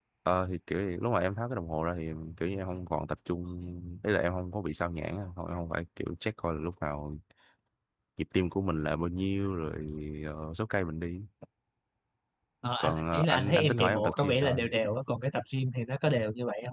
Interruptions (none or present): present